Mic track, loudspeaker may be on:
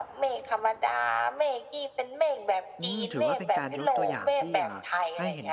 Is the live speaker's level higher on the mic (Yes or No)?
No